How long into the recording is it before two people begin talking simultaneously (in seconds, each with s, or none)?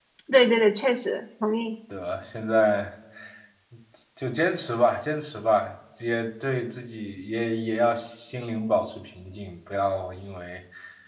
none